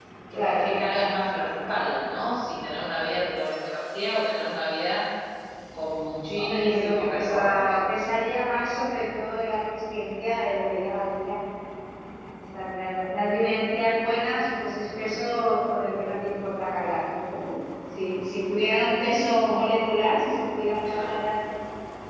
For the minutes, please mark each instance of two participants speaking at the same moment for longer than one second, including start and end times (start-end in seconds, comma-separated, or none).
6.4-7.6